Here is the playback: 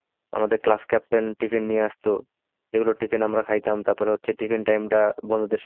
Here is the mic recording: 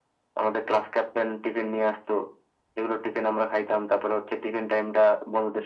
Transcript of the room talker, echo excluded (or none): none